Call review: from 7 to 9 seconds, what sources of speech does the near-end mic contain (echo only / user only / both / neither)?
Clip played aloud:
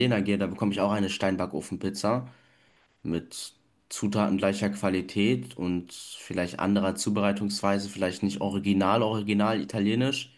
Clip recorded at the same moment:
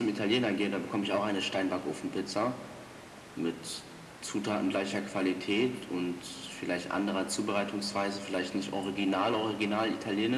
echo only